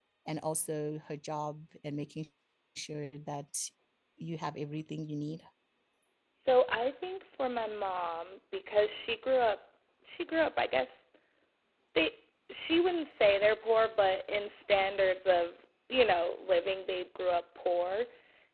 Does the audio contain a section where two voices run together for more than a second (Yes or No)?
No